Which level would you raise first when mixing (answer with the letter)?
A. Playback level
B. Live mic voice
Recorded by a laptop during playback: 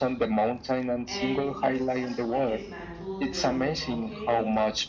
B